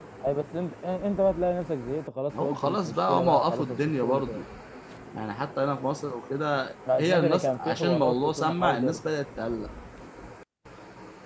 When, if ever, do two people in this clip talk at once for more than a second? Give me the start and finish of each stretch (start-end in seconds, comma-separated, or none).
2.4-4.4, 7.0-9.0